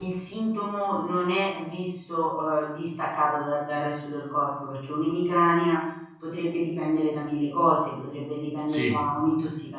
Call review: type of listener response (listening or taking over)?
listening